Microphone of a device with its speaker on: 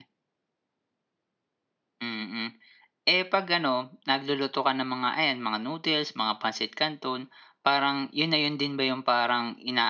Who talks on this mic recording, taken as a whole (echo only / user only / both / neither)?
user only